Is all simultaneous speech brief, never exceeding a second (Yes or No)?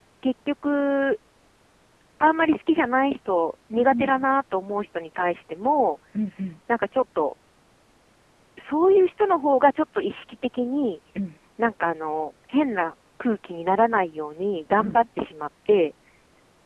Yes